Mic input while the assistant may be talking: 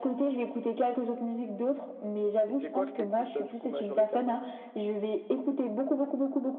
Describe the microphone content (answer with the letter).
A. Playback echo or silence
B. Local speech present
B